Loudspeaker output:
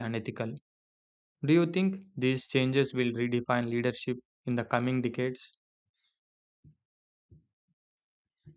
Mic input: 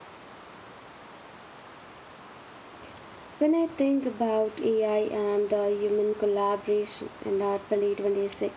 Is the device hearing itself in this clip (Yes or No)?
No